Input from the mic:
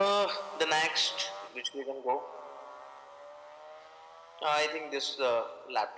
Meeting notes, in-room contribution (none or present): none